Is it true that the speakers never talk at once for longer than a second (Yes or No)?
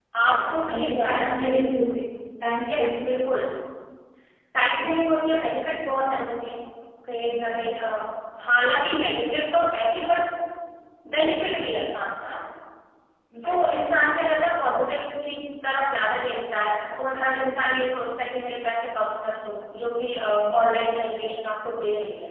No